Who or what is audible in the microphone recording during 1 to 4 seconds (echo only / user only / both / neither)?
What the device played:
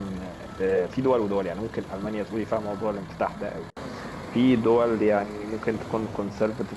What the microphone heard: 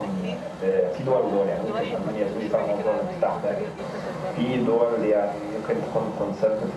both